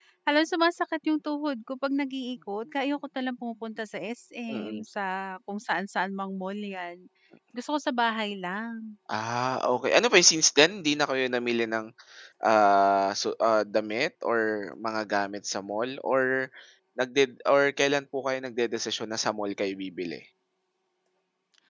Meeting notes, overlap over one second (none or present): none